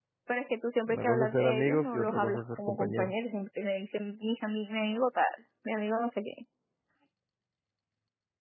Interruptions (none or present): present